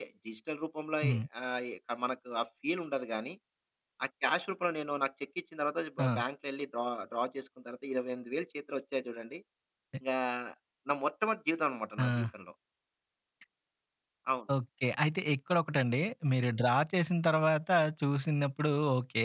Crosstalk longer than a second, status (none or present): none